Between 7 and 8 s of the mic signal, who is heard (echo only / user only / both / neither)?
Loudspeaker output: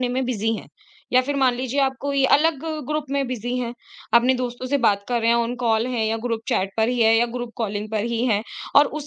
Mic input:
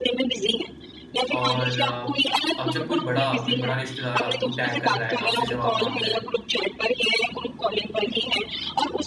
echo only